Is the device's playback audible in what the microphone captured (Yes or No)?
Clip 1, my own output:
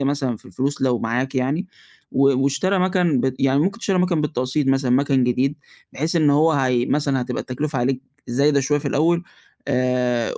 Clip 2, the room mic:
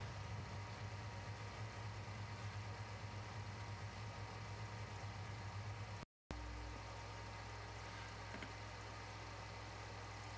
No